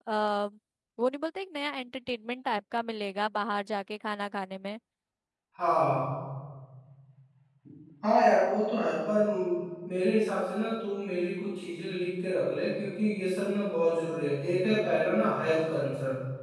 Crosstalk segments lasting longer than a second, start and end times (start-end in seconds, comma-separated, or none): none